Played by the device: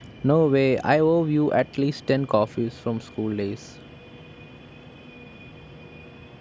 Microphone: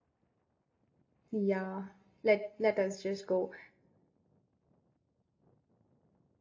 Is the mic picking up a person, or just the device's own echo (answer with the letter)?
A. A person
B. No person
A